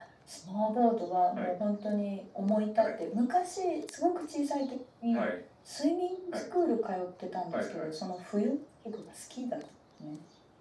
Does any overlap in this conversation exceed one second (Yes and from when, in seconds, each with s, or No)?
No